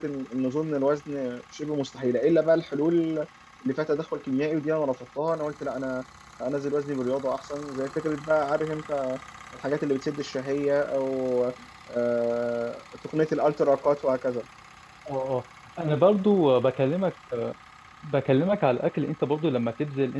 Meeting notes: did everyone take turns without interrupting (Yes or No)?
Yes